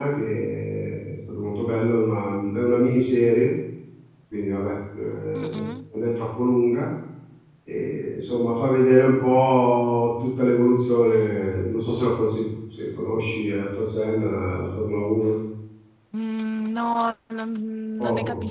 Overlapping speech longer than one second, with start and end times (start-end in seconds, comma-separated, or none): none